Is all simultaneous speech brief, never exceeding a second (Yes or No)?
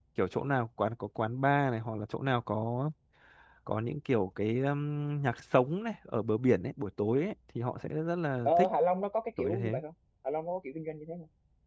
Yes